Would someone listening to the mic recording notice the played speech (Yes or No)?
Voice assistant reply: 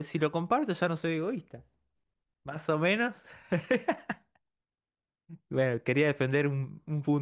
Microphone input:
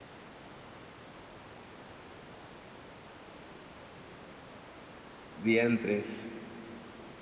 No